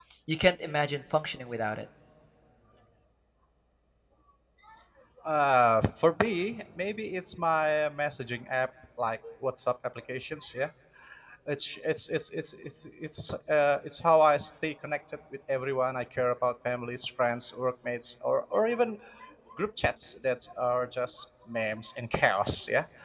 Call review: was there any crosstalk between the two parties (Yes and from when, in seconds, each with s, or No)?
No